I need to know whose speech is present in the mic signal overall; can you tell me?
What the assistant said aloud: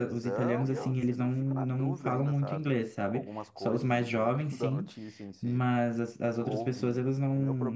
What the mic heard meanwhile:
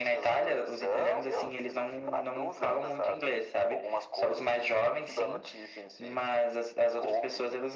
echo only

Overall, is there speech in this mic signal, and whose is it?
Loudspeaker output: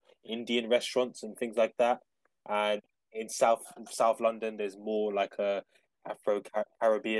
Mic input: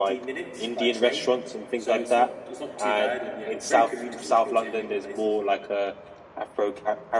both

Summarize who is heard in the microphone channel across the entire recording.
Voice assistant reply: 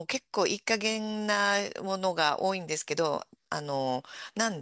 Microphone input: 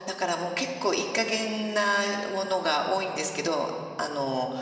echo only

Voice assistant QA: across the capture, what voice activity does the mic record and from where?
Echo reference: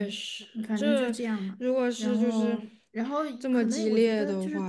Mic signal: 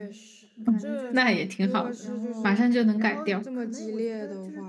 both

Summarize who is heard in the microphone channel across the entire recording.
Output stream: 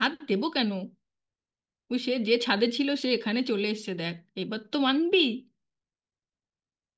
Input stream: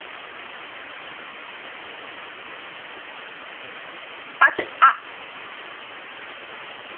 user only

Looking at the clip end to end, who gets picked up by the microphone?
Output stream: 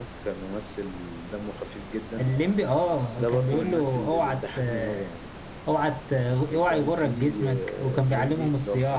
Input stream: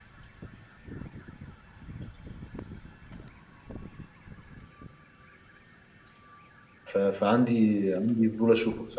user only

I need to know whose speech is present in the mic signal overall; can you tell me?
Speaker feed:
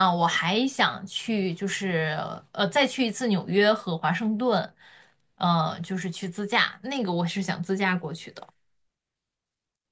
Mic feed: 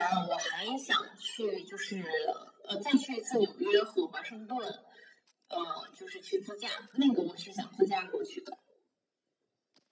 echo only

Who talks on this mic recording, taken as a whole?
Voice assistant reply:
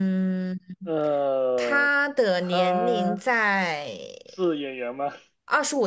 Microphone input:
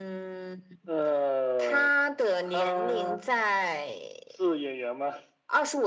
echo only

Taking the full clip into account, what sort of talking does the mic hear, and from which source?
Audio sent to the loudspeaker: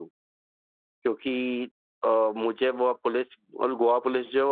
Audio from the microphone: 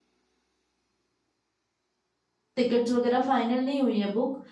user only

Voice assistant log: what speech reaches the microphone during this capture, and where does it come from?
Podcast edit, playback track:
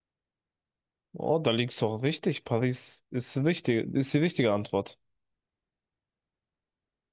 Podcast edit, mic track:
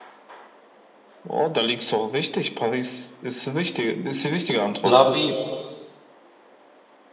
both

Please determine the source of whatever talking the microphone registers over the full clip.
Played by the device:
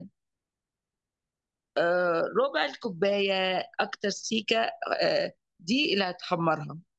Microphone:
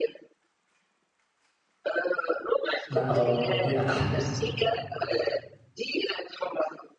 both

